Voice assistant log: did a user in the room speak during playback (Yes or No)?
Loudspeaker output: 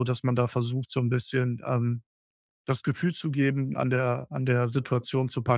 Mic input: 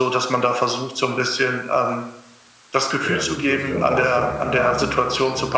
Yes